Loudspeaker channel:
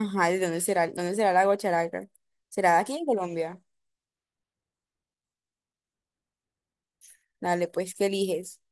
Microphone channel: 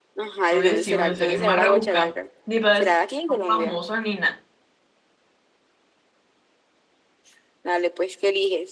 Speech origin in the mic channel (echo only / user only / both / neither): both